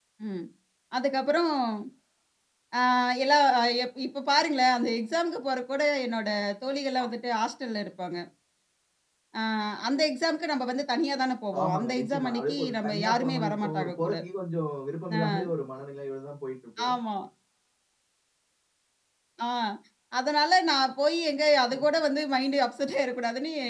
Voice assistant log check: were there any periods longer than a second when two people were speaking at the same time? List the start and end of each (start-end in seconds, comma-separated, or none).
11.6-14.1